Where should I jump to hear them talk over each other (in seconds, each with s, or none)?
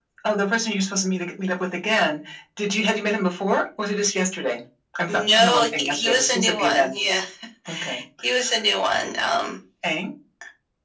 5.1 s